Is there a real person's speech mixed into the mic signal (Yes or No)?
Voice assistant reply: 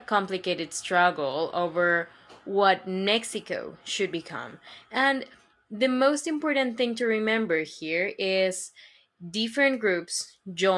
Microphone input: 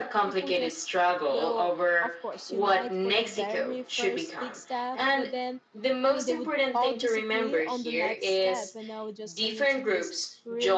Yes